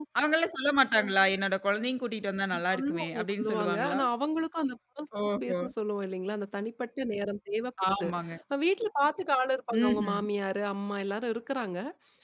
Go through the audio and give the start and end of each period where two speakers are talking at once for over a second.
2.5-4.0

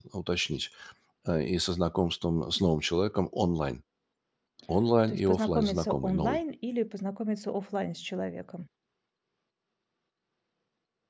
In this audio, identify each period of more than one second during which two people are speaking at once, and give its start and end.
5.1-6.4

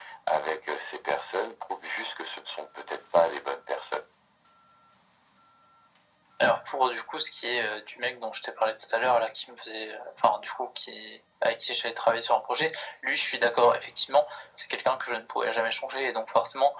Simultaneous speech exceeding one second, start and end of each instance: none

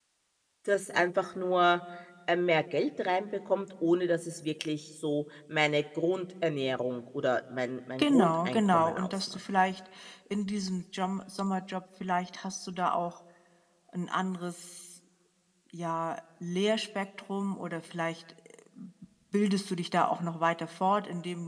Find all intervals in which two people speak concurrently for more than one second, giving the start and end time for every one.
8.0-9.4

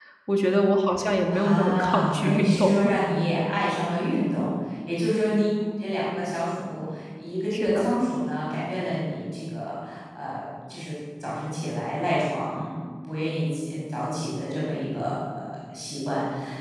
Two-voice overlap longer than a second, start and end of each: 1.3-2.9

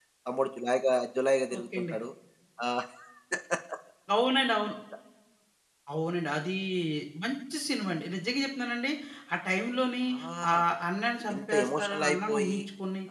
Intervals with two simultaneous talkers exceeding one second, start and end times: 11.3-12.6

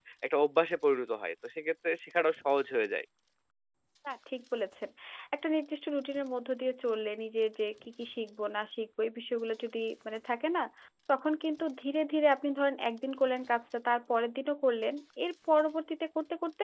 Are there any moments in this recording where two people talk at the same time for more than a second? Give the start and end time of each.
none

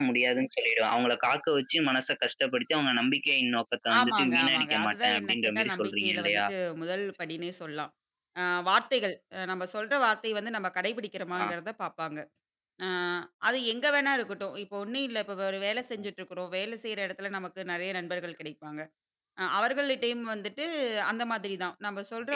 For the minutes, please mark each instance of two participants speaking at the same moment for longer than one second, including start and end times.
4.0-6.4

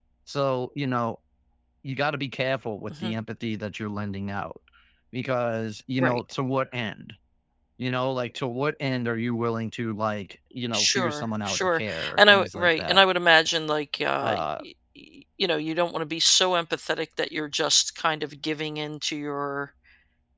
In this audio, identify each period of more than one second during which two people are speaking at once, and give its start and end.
10.7-13.0

